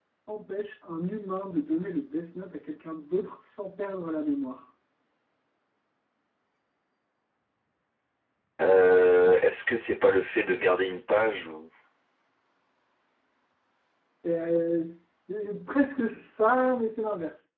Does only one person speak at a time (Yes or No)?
Yes